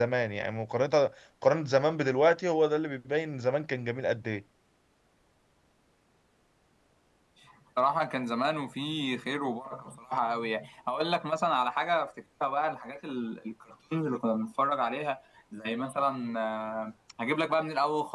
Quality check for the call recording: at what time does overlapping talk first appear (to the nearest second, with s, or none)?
none